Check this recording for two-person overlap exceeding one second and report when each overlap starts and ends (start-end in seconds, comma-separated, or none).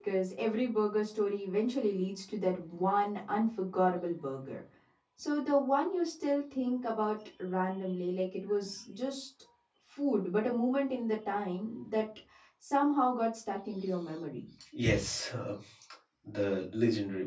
none